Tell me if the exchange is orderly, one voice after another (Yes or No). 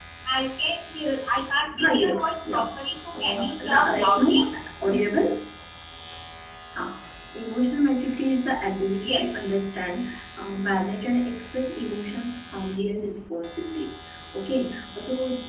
No